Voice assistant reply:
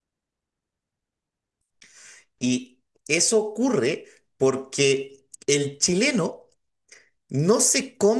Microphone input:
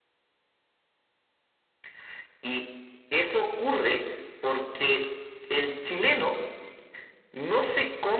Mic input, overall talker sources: echo only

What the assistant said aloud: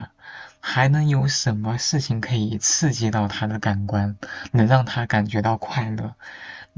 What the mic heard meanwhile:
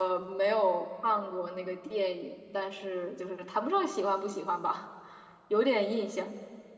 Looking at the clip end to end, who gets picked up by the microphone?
user only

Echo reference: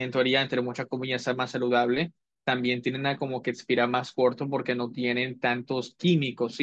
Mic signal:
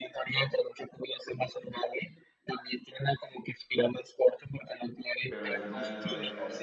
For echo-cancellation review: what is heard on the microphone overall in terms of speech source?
both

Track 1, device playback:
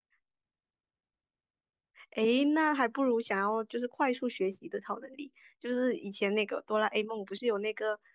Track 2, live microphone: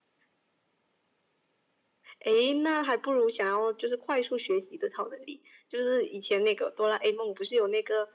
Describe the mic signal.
echo only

